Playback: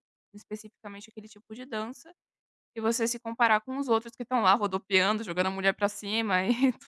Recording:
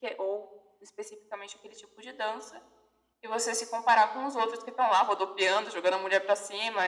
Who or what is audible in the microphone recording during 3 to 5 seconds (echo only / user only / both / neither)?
echo only